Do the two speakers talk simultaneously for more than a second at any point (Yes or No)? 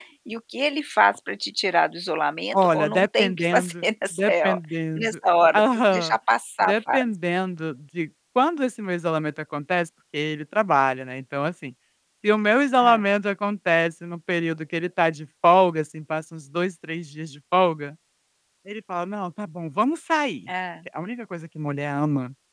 Yes